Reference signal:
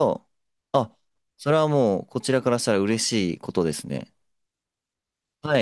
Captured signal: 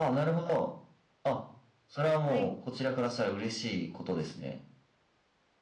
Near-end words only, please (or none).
はい、